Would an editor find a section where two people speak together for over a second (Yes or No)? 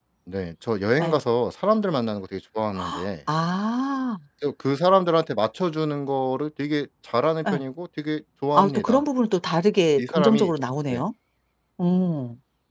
No